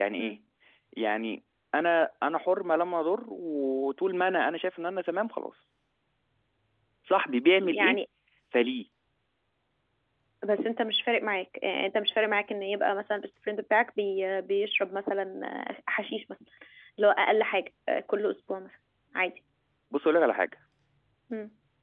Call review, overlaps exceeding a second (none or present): none